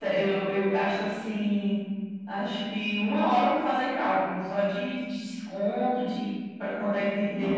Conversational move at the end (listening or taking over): taking over